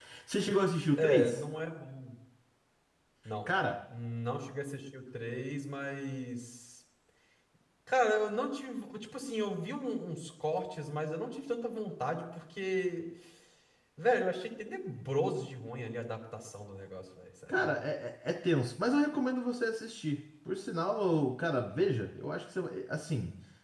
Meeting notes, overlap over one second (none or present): none